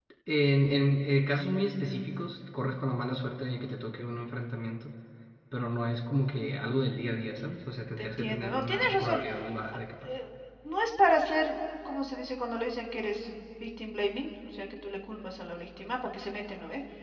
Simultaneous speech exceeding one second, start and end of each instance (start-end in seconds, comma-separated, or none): 8.0-9.2